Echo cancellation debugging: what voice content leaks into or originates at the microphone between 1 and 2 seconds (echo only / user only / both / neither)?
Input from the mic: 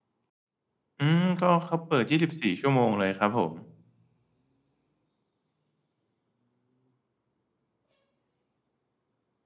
user only